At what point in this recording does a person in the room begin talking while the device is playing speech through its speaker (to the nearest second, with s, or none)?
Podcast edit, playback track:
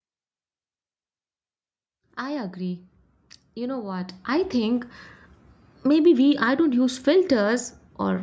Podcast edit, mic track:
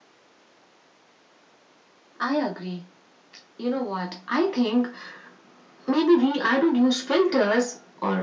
none